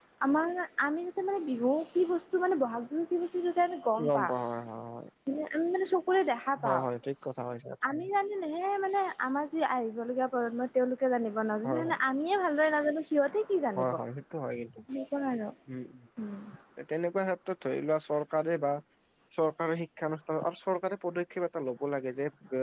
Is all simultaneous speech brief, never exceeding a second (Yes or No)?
Yes